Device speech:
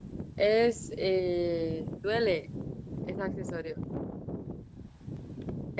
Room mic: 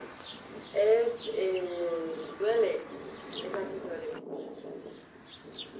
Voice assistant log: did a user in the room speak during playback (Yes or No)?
No